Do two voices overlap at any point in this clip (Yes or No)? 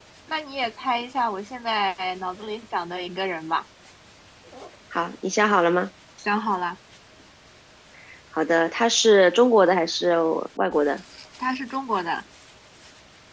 No